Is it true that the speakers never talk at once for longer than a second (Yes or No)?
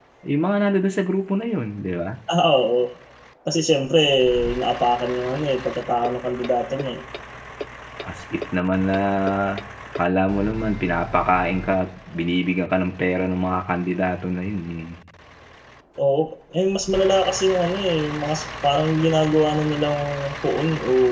Yes